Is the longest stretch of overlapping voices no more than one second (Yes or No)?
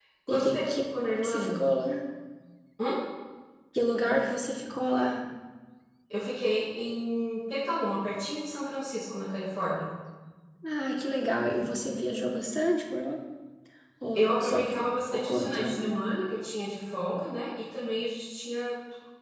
No